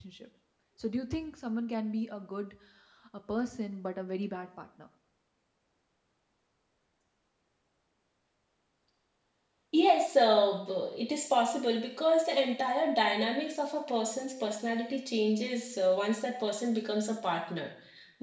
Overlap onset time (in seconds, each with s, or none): none